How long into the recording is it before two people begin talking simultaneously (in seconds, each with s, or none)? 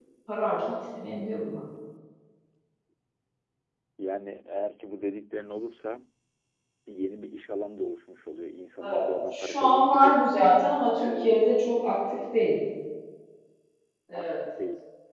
8.8 s